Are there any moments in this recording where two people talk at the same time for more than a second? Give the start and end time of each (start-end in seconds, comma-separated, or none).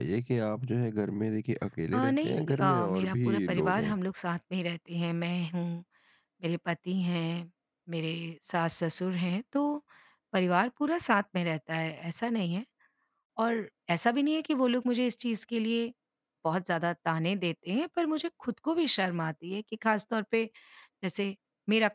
1.9-4.0